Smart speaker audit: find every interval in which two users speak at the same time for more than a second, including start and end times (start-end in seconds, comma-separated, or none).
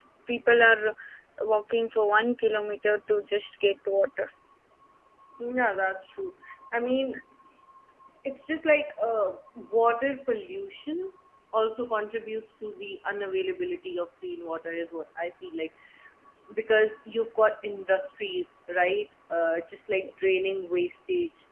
none